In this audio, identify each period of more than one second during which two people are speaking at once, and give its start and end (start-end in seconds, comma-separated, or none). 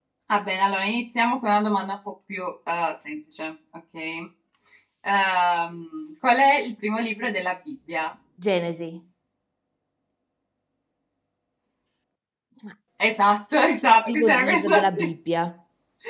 13.7-15.1